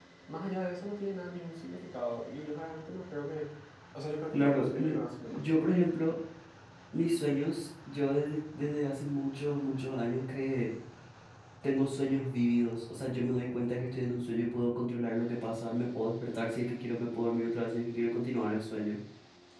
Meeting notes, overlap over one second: present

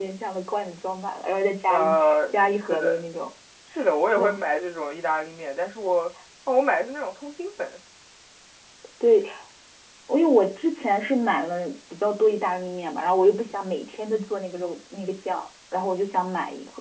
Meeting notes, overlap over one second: present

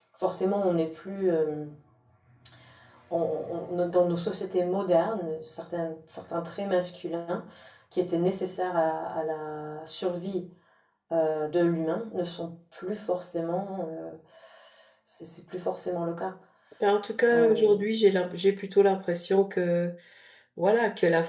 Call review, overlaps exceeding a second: none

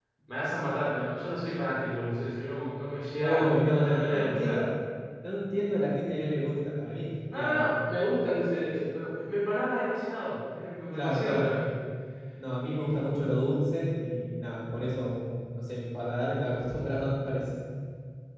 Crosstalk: present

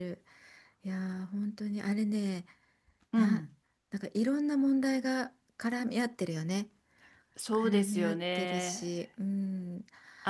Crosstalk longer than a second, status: present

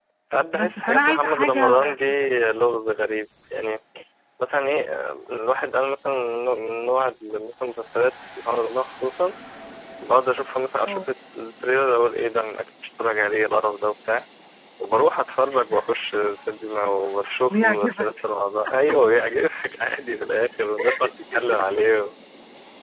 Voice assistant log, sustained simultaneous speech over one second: present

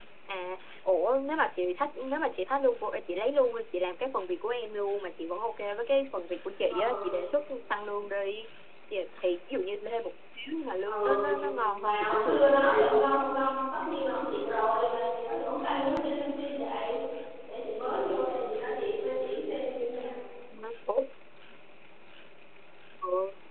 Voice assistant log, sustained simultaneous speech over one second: present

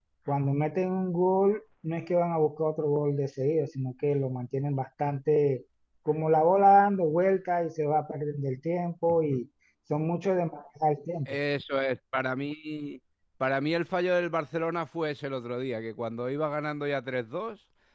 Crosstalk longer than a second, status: none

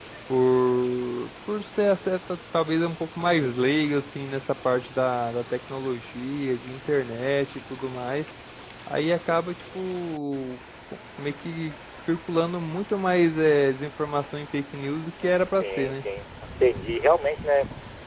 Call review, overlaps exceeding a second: none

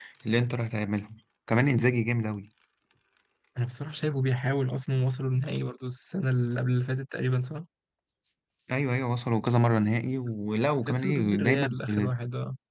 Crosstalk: present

